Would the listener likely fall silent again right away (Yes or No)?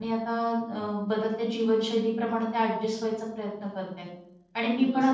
Yes